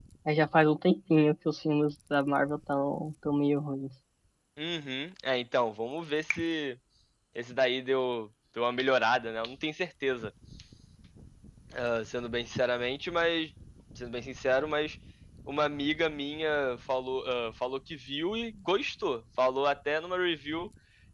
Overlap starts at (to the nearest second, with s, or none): none